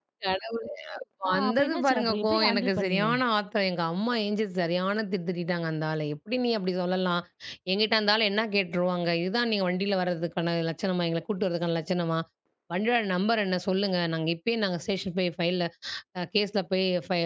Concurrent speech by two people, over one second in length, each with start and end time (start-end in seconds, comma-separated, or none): 1.3-3.1